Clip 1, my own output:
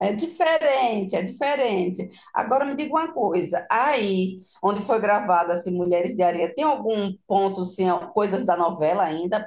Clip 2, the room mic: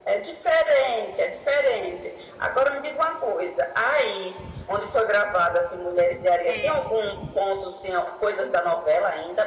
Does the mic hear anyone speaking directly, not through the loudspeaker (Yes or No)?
Yes